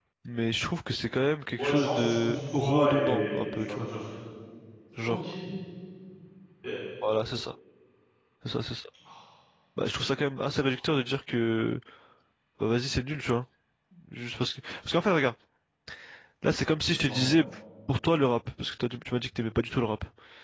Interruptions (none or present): present